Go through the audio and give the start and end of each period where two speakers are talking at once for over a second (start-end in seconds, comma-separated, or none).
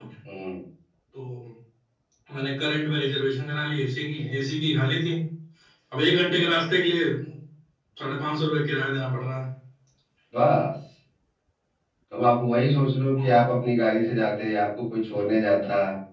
none